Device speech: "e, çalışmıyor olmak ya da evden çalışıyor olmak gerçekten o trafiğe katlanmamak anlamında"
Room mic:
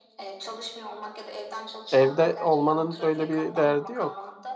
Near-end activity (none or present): present